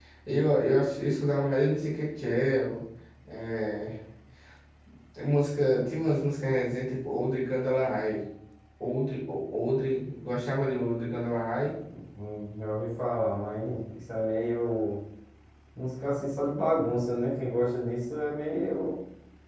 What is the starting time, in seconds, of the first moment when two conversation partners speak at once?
none

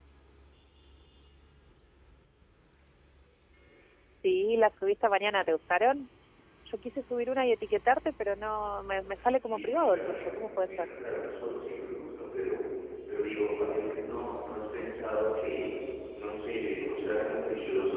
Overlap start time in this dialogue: 9.3 s

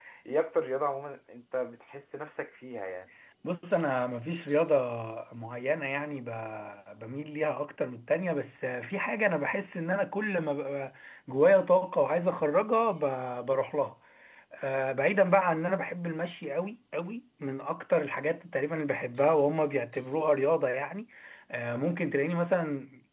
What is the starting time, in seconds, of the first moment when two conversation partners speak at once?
none

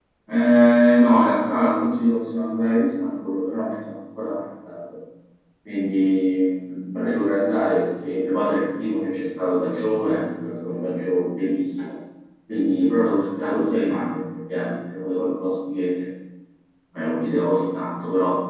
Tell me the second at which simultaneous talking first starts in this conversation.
none

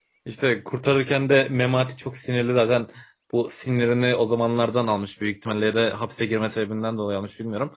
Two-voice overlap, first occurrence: none

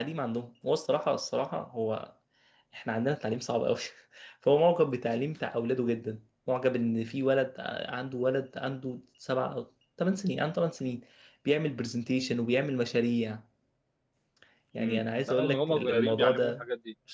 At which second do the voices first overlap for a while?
14.8 s

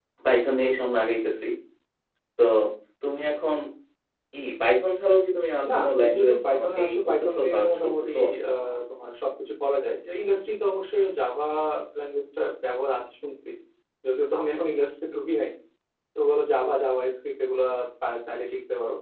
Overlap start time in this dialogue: 5.6 s

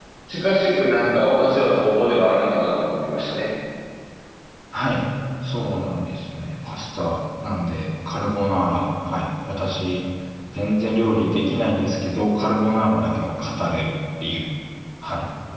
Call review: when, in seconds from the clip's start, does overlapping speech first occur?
none

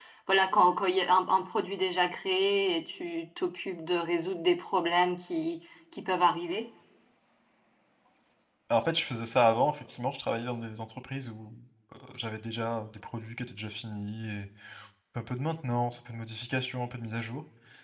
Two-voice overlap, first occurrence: none

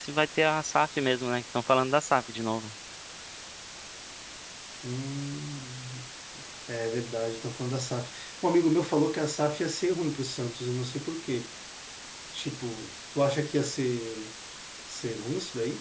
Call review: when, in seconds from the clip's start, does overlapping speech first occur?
none

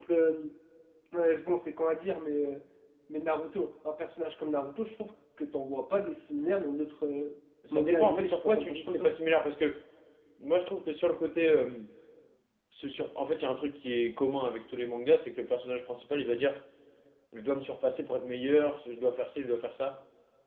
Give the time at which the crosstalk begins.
7.6 s

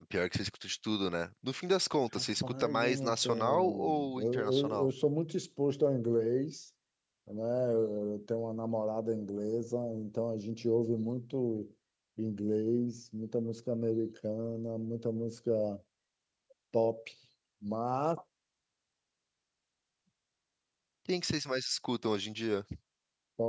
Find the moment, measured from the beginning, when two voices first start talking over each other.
2.1 s

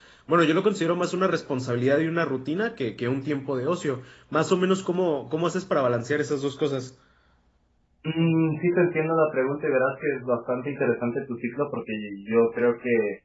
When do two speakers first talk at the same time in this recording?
none

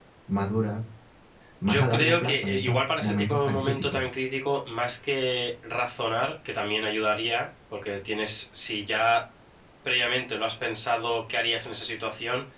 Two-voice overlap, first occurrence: 1.6 s

